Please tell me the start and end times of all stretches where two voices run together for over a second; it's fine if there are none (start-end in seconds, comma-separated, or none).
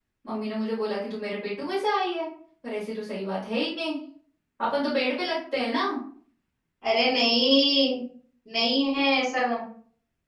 none